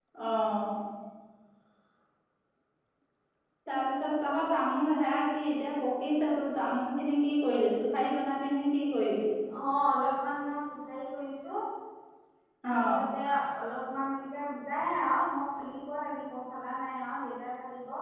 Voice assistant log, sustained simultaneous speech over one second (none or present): none